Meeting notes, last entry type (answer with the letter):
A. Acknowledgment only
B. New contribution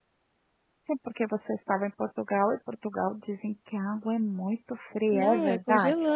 B